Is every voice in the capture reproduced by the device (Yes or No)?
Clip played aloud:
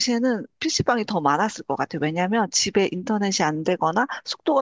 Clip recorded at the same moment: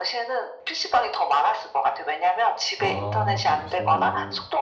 No